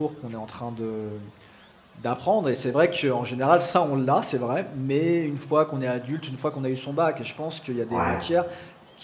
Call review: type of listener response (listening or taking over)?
listening